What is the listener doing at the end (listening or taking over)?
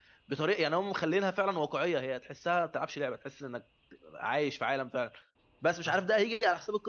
listening